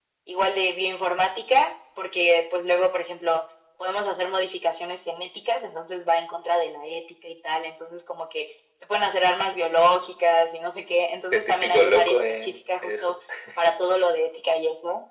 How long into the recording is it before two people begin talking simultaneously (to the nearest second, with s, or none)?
11 s